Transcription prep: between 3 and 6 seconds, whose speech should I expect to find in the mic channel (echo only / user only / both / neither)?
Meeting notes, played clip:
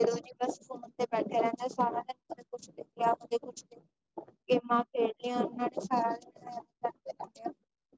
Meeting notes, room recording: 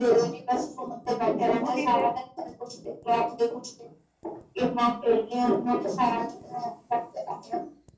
echo only